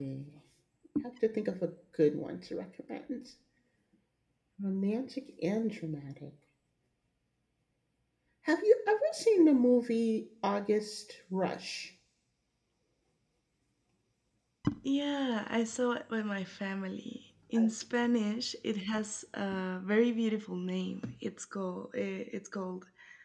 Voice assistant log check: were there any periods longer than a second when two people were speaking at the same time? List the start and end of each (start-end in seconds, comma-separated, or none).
none